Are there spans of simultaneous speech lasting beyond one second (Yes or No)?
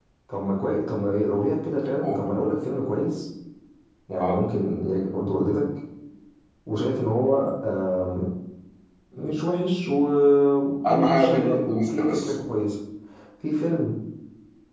Yes